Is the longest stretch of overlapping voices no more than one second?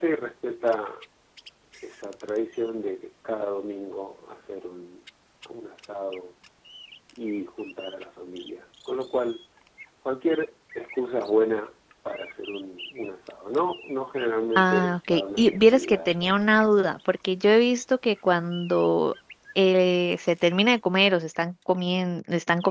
No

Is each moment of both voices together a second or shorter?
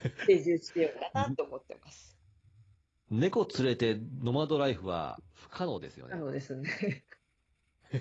Yes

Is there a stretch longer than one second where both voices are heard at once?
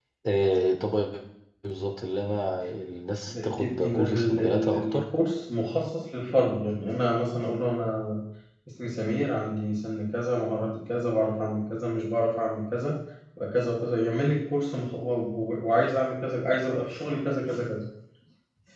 Yes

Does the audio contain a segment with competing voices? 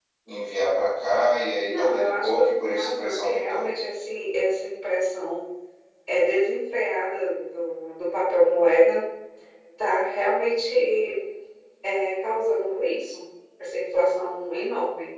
Yes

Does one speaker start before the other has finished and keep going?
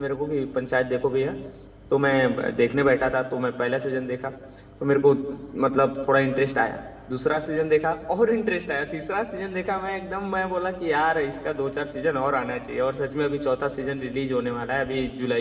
No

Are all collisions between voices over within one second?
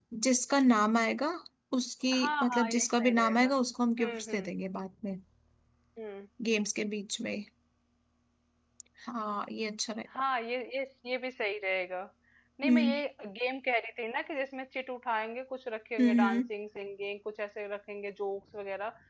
No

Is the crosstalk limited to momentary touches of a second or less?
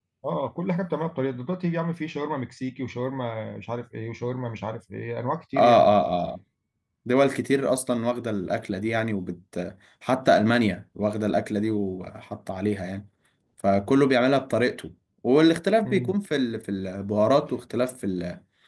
Yes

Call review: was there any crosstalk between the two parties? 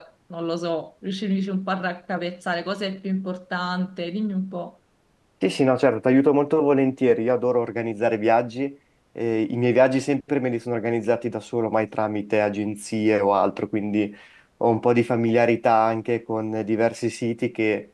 No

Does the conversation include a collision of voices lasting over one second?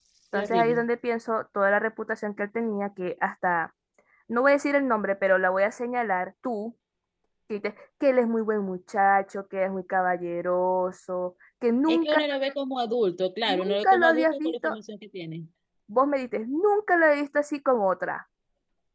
Yes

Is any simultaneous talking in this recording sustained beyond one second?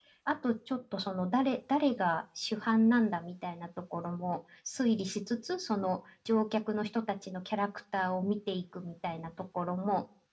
No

